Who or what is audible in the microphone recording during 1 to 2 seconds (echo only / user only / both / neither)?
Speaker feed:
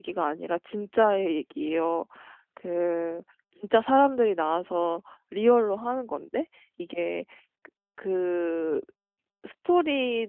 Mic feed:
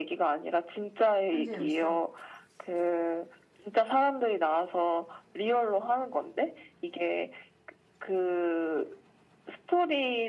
both